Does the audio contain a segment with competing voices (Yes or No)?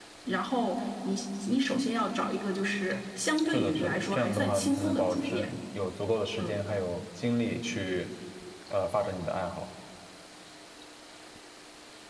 Yes